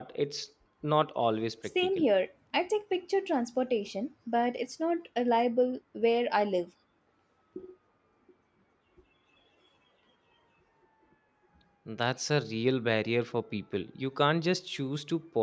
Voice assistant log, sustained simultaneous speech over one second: none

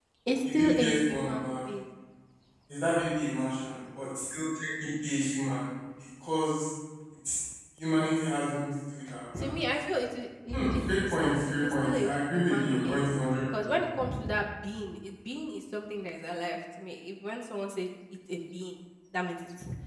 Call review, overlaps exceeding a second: present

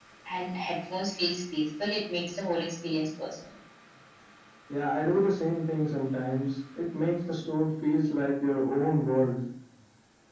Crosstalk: none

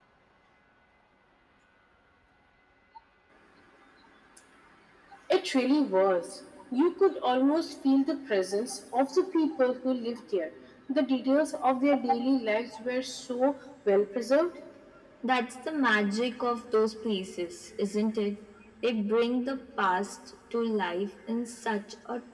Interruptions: none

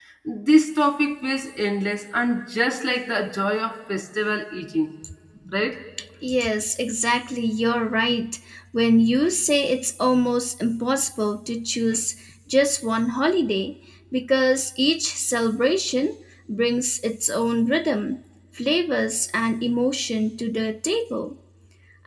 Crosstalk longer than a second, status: none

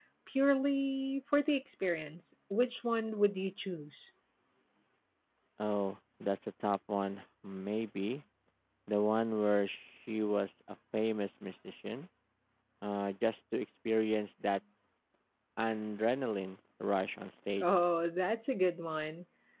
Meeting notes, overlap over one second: none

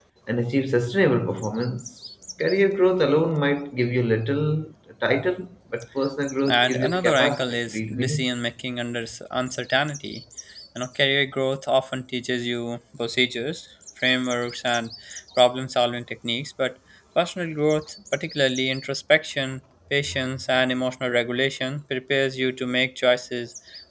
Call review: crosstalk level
present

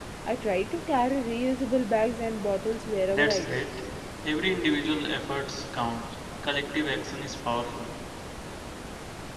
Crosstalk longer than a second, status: none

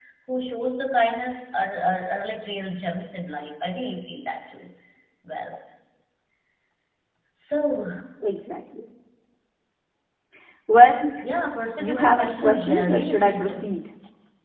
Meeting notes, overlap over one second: present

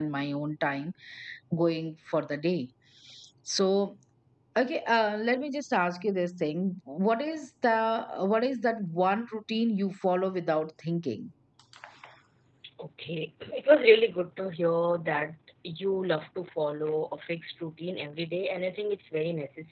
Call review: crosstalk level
none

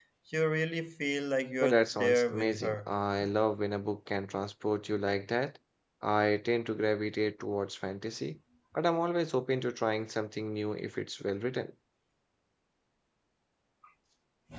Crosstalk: present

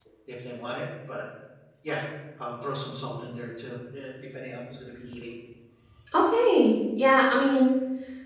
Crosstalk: none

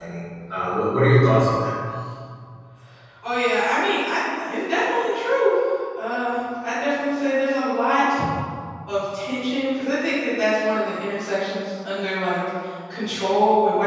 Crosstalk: none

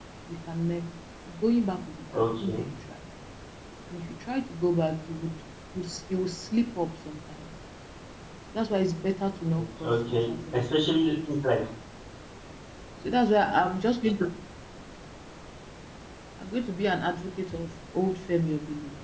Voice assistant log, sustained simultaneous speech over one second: present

